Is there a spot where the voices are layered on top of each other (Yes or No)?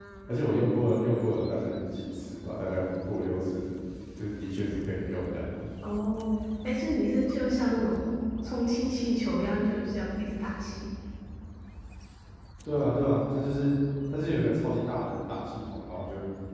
No